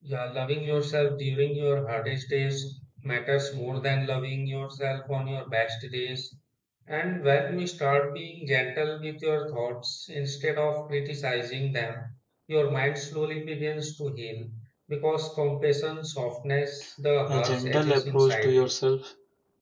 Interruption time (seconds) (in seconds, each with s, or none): 17.3 s